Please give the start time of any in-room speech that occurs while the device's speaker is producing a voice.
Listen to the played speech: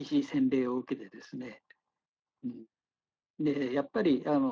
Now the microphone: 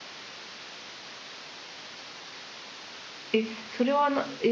3 s

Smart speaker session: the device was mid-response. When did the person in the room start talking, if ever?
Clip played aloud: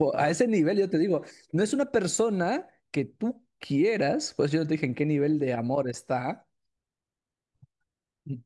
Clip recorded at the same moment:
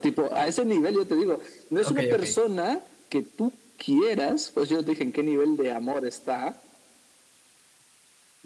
2 s

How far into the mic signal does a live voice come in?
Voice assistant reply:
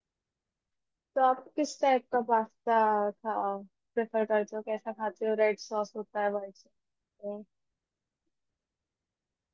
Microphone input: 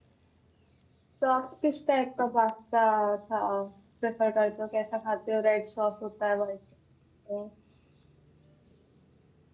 none

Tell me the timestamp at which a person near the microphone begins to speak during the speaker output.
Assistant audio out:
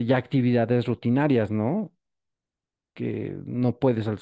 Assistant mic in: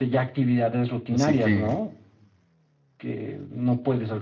1 s

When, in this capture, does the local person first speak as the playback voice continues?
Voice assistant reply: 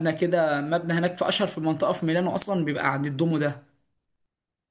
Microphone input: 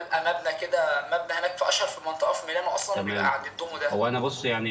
3 s

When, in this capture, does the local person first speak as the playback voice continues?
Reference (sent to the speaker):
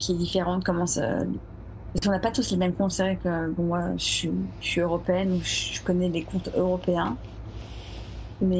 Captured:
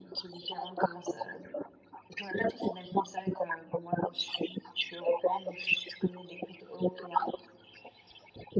none

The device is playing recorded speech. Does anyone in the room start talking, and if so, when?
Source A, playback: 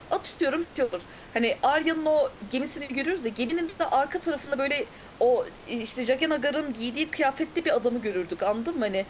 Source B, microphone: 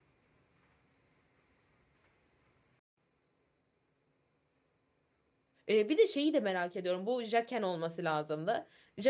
6 s

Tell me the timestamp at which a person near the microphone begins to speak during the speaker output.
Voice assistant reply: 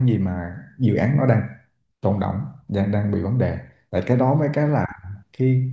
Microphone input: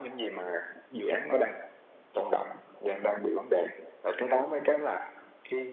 none

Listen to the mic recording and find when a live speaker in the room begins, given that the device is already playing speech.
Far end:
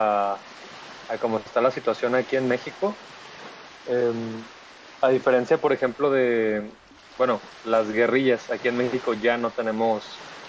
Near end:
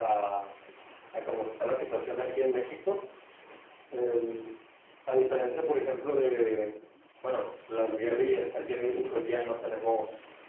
none

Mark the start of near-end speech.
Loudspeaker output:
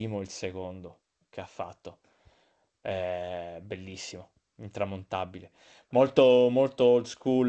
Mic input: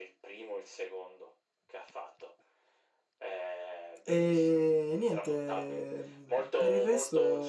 4 s

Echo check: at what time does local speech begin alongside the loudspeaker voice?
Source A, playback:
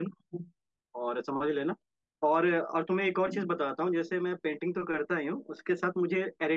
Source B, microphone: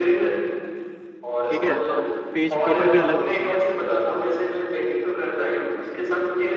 1 s

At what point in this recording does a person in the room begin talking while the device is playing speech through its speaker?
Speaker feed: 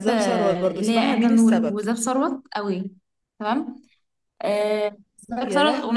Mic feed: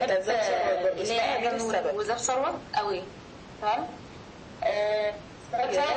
none

